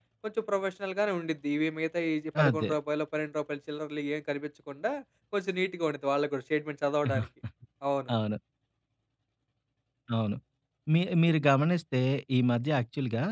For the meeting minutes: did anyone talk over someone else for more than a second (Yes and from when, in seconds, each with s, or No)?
No